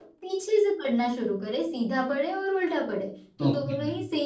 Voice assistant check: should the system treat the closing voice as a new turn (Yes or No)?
No